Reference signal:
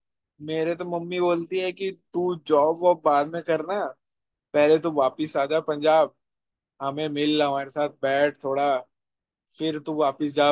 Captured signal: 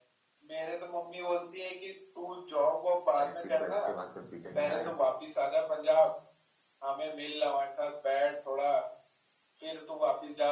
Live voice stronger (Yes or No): No